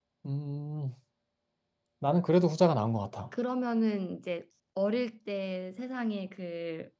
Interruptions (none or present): none